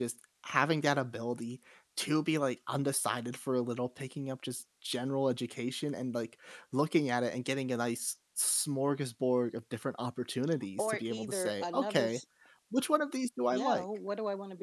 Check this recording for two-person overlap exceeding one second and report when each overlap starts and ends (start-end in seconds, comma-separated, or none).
10.8-12.2